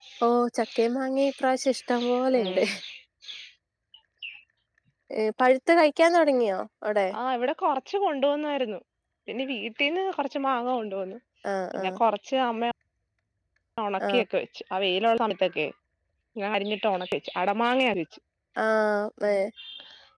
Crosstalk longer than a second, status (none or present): none